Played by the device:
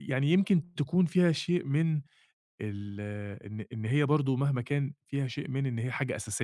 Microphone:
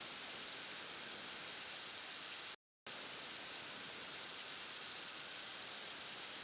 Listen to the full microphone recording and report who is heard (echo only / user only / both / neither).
neither